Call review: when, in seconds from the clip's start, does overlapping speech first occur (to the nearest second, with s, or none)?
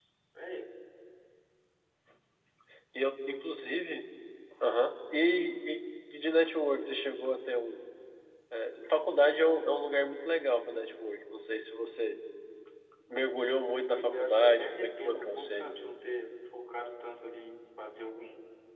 14 s